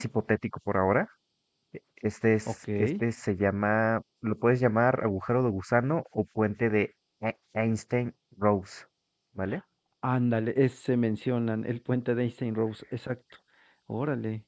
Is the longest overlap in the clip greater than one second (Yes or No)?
No